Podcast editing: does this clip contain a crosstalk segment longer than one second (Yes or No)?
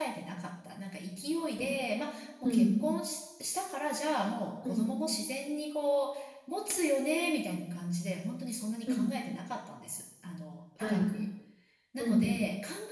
No